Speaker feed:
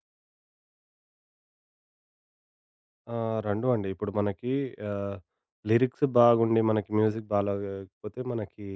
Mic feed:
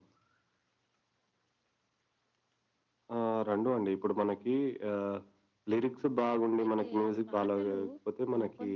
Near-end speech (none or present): present